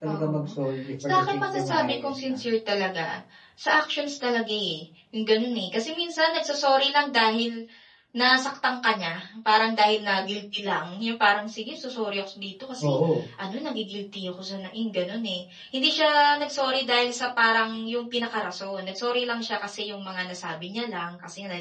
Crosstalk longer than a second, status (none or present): present